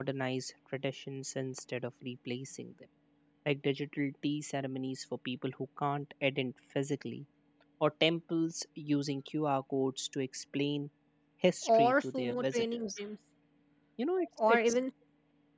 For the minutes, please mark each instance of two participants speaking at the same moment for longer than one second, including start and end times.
11.8-13.0

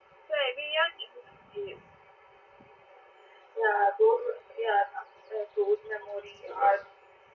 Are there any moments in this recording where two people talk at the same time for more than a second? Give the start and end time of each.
none

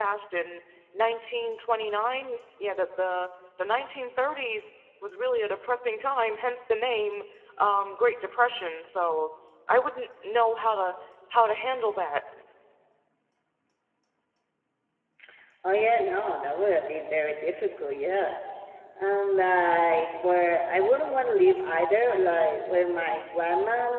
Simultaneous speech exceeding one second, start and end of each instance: none

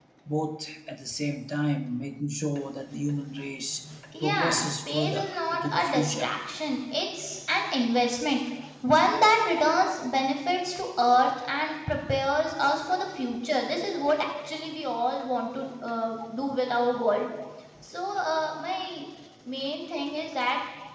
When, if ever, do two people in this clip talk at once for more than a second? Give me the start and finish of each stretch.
4.2-6.3

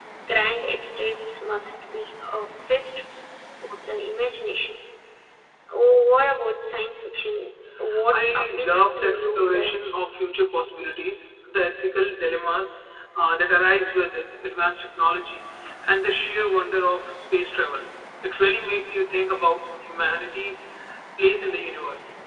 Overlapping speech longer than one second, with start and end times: 8.1-9.7

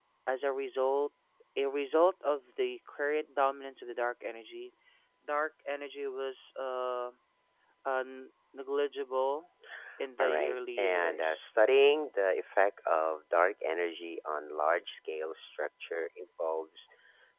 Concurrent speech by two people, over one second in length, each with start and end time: 10.2-11.5

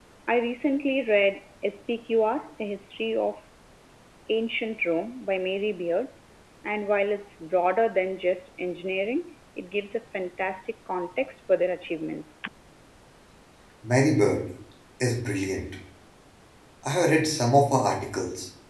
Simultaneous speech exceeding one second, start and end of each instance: none

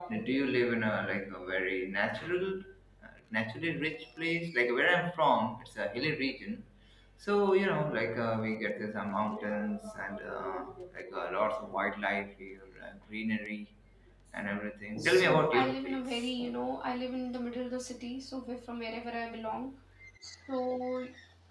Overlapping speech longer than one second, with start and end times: 15.0-16.3

